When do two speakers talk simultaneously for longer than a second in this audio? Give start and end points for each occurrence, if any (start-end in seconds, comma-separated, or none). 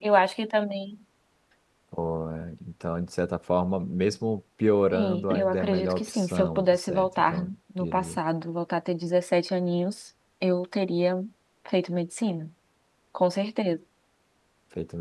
4.9-8.2